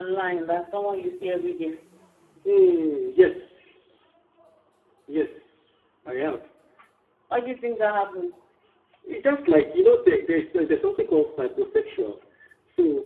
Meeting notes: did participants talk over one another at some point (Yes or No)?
No